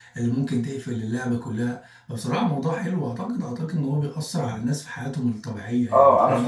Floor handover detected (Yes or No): Yes